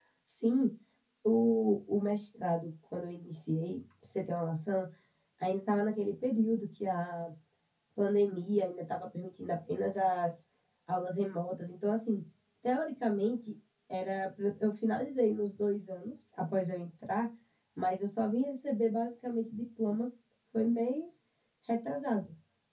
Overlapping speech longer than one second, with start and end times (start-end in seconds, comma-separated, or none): none